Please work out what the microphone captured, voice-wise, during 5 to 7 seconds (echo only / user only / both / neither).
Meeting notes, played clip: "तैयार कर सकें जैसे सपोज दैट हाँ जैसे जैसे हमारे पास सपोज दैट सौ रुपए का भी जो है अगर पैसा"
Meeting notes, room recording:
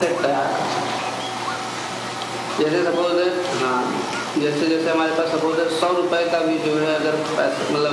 echo only